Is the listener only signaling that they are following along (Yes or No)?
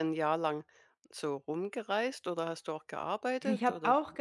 No